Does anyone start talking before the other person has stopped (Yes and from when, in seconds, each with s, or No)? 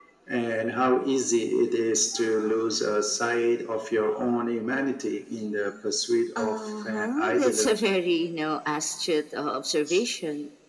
Yes, from 6.4 s